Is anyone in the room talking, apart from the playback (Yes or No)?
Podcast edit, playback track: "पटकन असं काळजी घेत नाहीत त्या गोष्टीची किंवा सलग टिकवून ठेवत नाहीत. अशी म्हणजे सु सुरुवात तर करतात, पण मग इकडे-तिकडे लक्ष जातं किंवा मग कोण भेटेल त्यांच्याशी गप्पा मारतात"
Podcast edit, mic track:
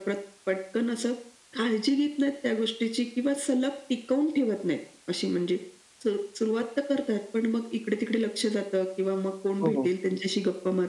Yes